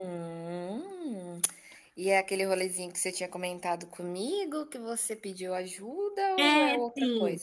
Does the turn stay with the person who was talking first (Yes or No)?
No